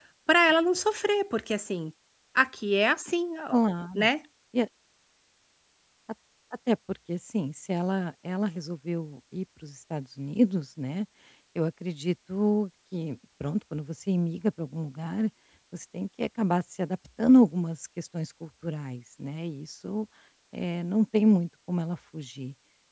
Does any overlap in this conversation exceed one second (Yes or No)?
No